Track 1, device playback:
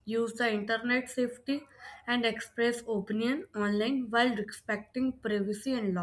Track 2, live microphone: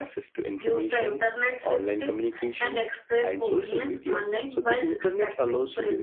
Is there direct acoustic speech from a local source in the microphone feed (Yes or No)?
Yes